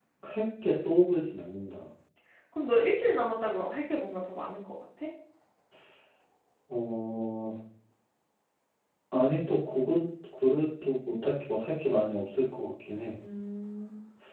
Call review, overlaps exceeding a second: none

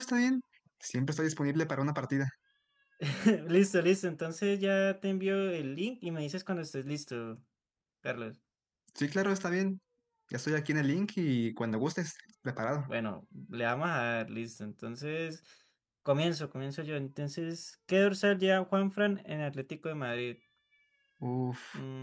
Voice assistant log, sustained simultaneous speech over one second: none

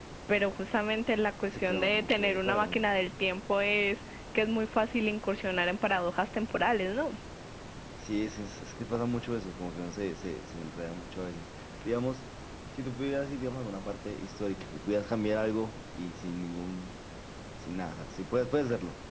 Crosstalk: present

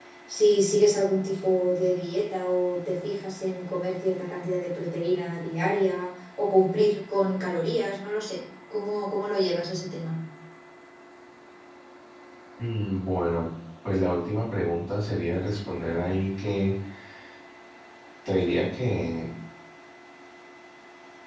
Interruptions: none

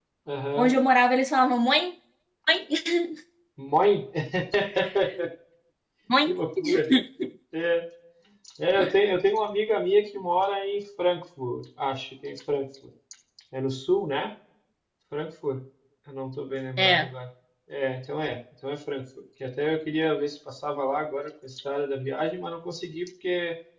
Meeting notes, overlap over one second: none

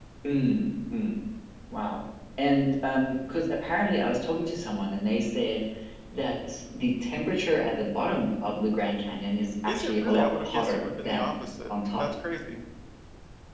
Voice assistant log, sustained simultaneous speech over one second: present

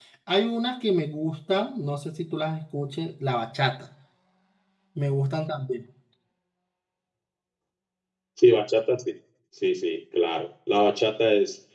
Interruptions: none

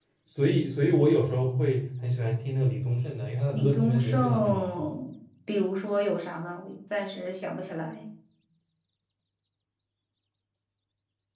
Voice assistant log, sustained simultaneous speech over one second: present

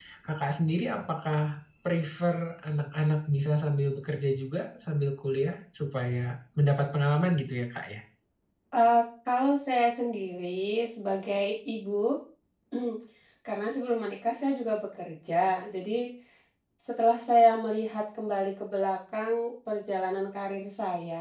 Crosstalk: none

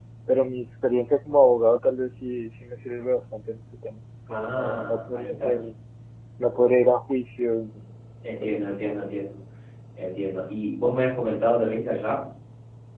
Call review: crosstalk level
present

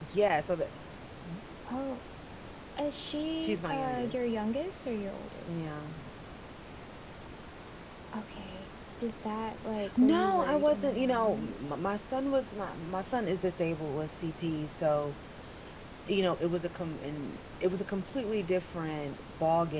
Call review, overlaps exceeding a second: present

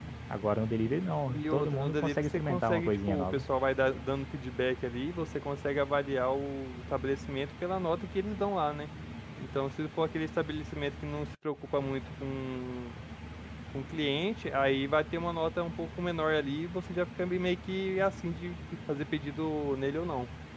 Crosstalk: present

